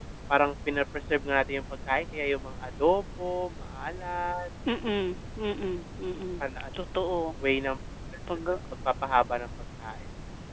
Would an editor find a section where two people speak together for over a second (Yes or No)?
No